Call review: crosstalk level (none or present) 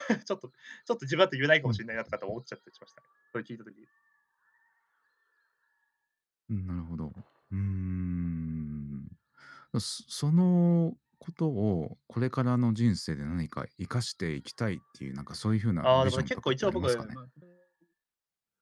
present